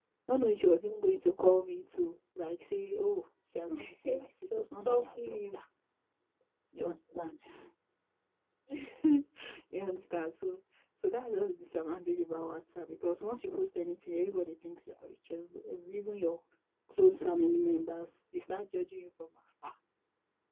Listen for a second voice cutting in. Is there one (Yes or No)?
Yes